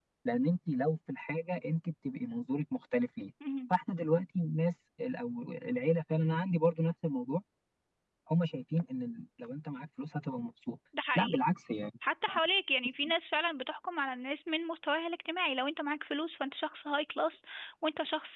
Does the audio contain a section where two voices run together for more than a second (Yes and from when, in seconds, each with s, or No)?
No